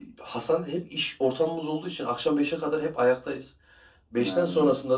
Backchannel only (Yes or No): Yes